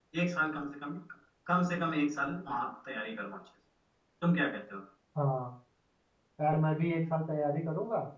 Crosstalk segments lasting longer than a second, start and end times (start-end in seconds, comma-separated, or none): none